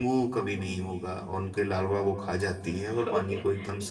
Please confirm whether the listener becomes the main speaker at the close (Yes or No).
Yes